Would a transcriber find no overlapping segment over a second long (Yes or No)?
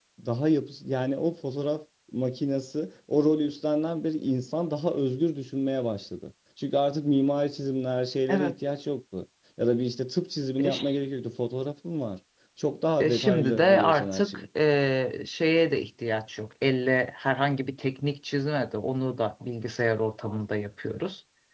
No